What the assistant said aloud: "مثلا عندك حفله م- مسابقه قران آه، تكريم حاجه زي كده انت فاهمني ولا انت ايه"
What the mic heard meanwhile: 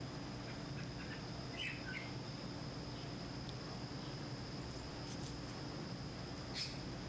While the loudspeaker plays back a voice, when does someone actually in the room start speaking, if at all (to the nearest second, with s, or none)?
none